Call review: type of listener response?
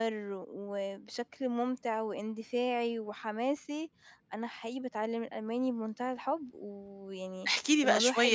taking over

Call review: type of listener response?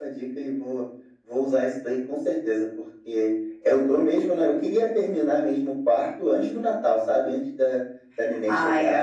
listening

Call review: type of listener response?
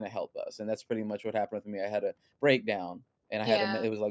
listening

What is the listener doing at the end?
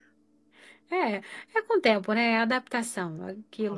listening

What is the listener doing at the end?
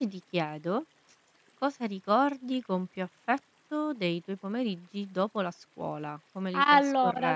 taking over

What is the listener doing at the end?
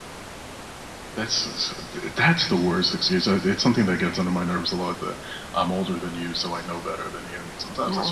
taking over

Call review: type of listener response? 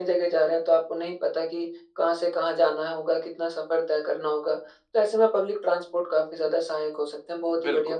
listening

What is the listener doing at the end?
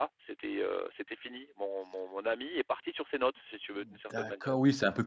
taking over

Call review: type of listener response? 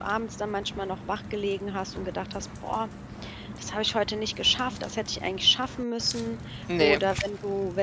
listening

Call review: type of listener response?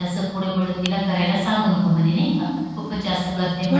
listening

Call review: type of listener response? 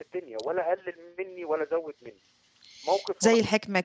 taking over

